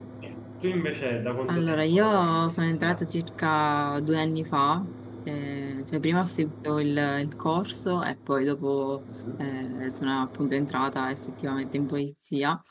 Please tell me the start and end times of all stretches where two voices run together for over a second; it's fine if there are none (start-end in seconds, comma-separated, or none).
1.5-3.0